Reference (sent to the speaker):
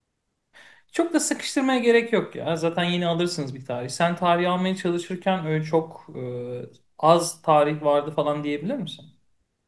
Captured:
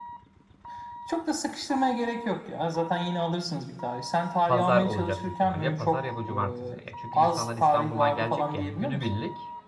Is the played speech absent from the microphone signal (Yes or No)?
No